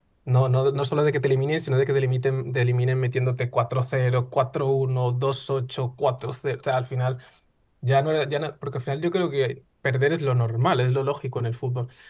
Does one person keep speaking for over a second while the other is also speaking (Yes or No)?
No